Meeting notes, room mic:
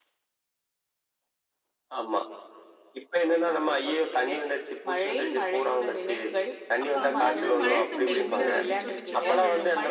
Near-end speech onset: 6.8 s

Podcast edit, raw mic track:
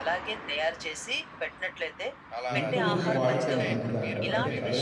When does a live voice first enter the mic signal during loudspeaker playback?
2.6 s

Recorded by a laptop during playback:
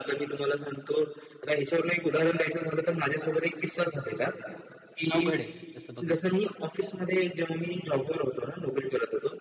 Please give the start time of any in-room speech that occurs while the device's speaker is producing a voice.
5.1 s

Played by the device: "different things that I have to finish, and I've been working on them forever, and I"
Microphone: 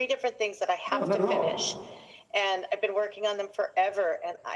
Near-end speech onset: 0.9 s

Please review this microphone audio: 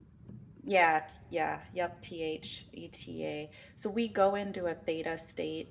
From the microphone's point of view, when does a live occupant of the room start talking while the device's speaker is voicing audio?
0.6 s

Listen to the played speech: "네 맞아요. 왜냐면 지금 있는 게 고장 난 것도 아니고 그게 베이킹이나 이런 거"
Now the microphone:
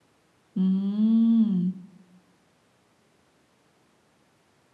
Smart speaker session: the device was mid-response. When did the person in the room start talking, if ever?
0.6 s

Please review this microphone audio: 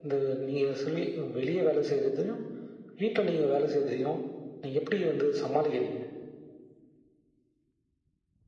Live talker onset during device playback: none

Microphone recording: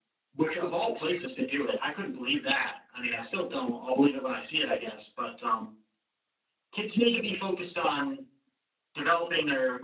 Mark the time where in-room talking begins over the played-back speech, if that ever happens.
none

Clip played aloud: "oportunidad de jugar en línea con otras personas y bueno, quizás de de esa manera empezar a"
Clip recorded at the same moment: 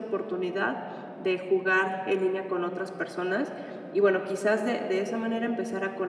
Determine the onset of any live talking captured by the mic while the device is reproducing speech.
none

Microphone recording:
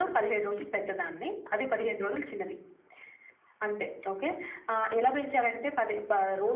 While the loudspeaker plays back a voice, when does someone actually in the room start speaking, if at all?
none

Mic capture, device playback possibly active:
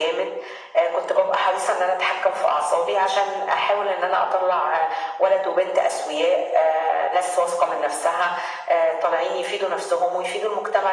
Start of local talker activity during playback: none

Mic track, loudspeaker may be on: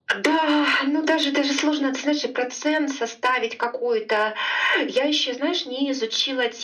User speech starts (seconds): none

